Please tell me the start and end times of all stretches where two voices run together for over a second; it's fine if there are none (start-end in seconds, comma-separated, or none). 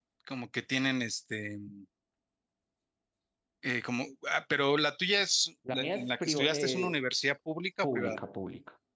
5.7-7.0